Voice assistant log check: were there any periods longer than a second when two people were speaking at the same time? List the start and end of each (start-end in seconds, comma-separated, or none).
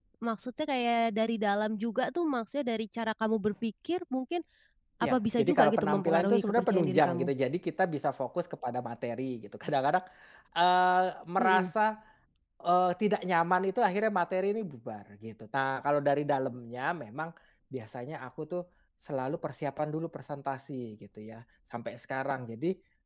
5.0-7.3